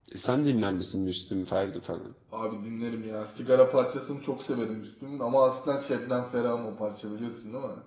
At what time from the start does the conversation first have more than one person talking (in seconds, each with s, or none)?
none